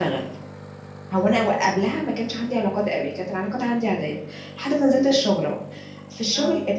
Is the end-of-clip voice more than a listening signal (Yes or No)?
No